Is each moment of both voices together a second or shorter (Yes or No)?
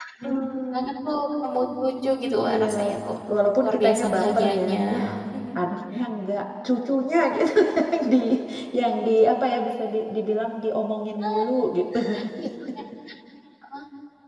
No